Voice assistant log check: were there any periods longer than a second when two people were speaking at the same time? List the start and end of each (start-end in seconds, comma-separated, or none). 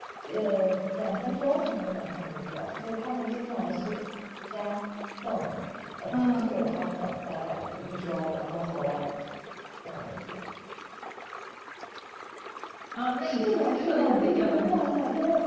13.2-14.9